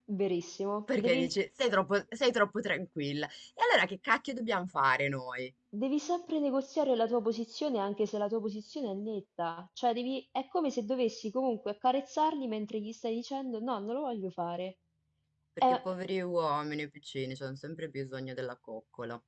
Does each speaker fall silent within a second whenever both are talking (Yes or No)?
Yes